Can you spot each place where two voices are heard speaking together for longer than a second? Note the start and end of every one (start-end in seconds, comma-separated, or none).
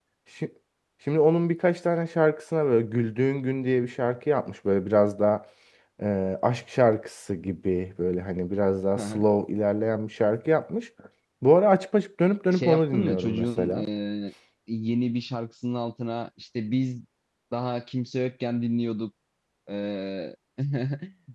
12.5-13.8